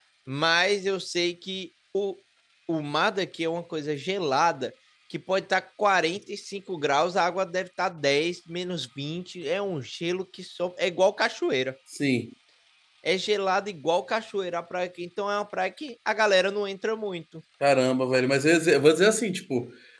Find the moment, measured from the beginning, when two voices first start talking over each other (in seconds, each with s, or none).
none